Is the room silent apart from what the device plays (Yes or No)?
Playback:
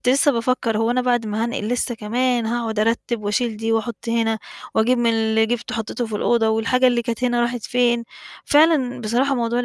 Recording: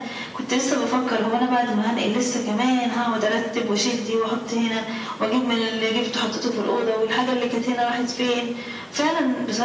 Yes